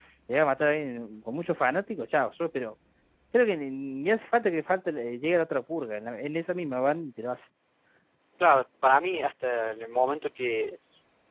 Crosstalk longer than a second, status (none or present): none